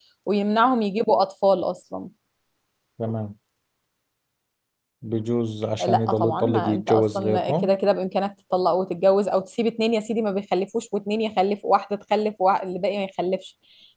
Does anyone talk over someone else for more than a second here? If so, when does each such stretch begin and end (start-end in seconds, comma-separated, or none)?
5.8-7.7